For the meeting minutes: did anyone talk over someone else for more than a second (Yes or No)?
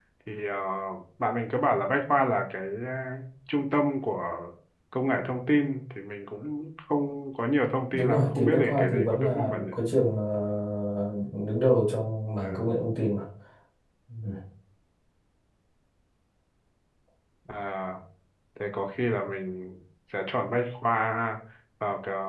Yes